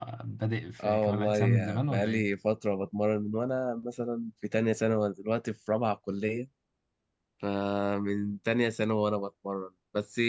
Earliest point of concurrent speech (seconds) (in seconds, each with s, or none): 0.8 s